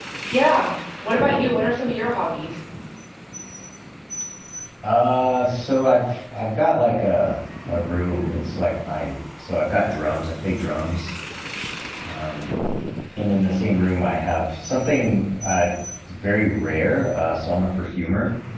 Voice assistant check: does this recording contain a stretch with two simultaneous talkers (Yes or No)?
No